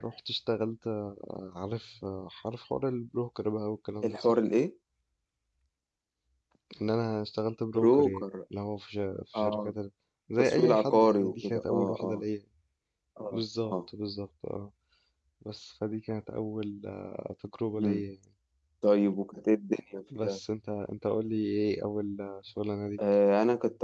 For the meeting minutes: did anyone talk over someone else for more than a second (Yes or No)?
Yes